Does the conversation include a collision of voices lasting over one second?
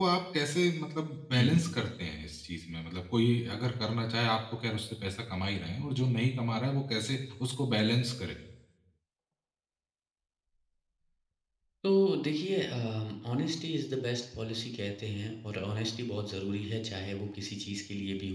No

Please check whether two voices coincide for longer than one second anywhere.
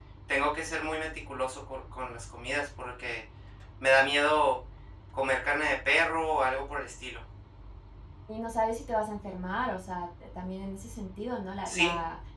No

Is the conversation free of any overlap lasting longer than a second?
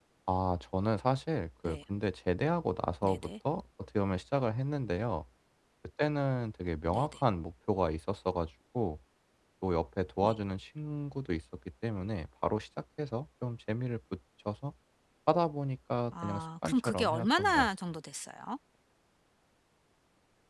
No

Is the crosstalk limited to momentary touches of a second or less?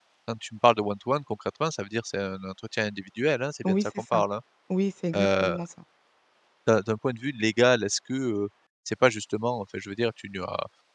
Yes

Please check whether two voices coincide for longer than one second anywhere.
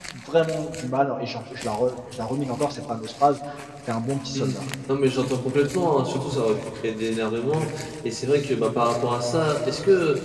No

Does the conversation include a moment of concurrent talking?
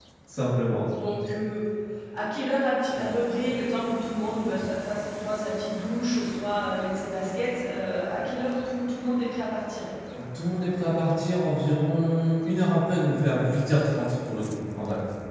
No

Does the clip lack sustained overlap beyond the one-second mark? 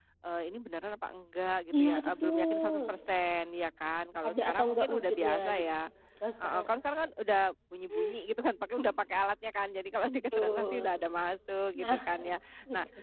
No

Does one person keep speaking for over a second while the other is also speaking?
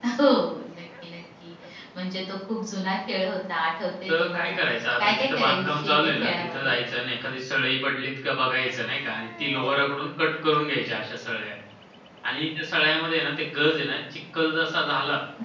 Yes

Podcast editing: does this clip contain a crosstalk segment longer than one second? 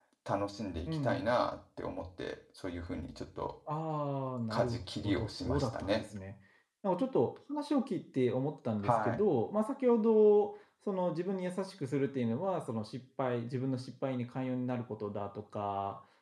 Yes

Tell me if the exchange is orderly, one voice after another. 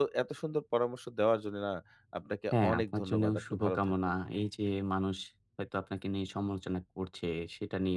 No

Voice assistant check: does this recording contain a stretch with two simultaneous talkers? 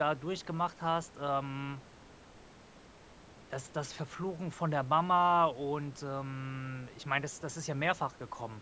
No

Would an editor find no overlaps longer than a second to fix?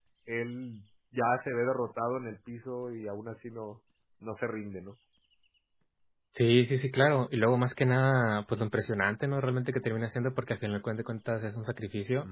Yes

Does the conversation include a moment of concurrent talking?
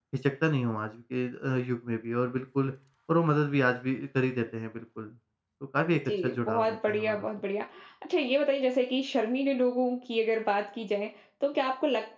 Yes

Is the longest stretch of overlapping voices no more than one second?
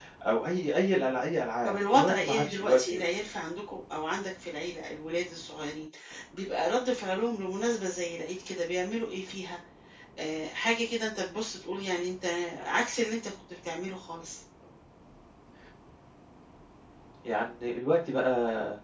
No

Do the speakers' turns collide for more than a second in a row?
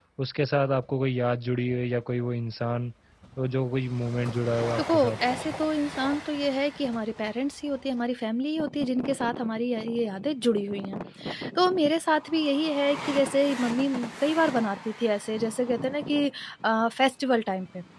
No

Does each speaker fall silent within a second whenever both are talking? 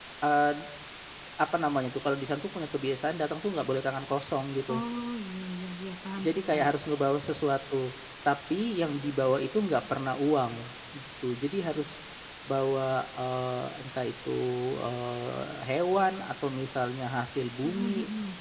Yes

